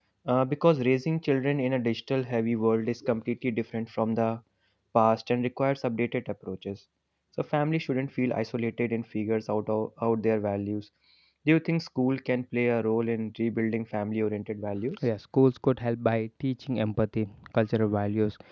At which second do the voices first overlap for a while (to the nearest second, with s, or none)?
none